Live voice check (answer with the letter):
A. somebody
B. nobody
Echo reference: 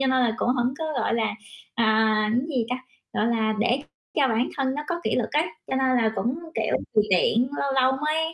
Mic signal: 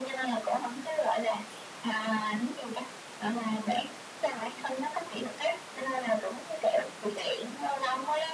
B